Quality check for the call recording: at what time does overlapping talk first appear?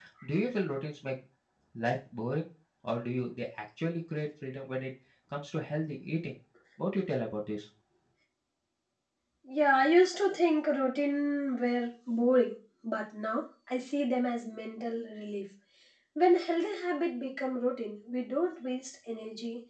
none

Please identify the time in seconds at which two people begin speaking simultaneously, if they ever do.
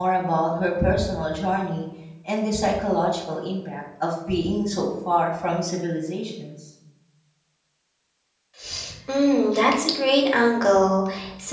none

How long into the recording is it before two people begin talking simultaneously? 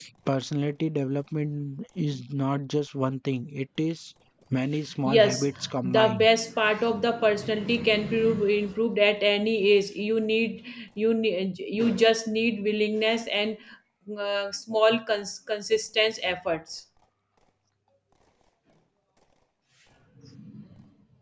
5.0 s

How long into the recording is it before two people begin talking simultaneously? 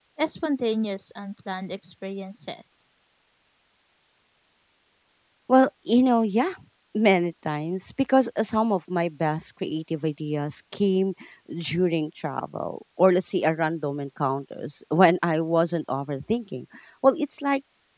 none

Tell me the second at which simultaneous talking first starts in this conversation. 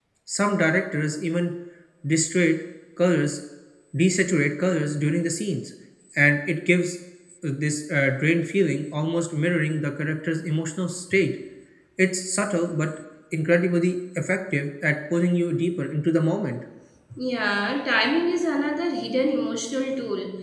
none

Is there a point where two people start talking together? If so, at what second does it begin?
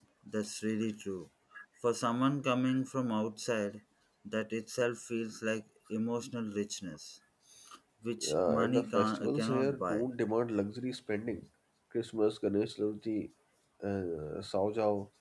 8.2 s

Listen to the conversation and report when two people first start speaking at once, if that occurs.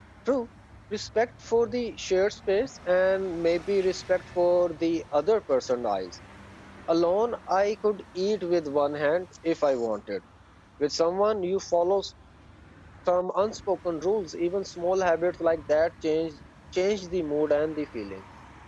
none

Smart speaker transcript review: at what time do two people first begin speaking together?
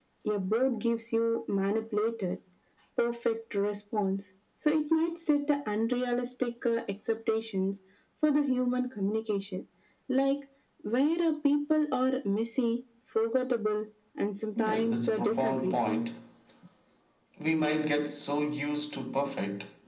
14.6 s

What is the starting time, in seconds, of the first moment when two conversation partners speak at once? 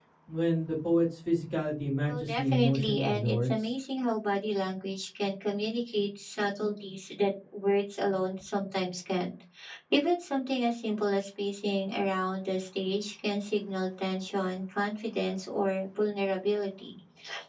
2.1 s

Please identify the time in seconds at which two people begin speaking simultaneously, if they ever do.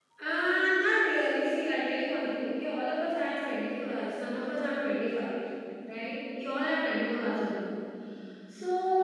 none

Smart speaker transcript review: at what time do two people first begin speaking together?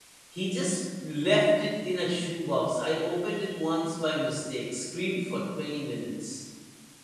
none

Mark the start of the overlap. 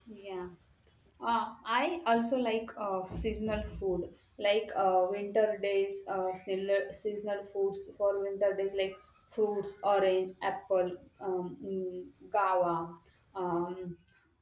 none

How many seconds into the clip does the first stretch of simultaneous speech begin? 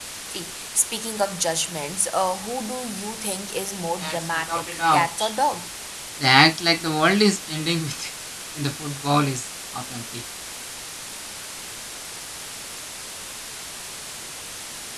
4.0 s

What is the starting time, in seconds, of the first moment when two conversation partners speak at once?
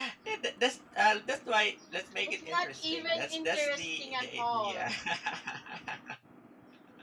2.2 s

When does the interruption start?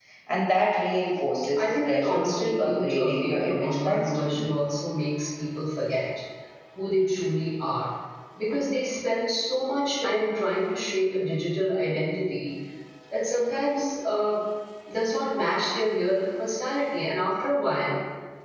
1.6 s

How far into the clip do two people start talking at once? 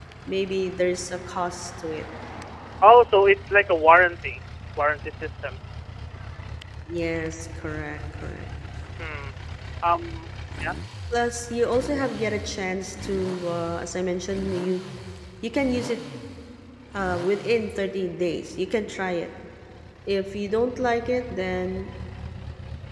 none

